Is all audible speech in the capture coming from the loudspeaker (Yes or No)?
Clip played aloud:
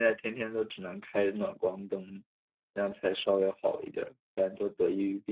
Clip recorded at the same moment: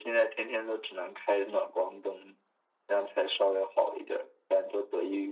Yes